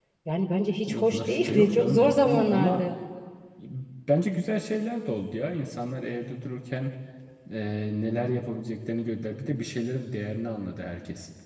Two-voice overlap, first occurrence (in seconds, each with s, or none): 0.9 s